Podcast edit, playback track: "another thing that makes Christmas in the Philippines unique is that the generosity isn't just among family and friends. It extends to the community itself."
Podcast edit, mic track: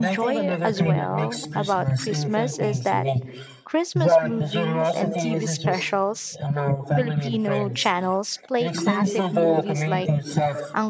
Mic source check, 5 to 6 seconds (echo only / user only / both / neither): both